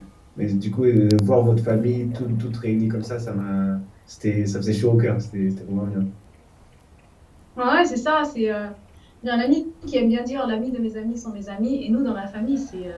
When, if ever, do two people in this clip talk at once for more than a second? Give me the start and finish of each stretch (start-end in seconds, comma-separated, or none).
none